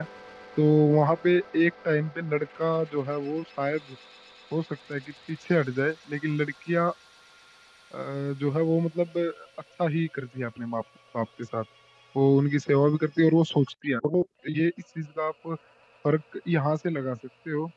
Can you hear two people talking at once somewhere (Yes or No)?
No